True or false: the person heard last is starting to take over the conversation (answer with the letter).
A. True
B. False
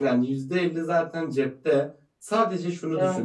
B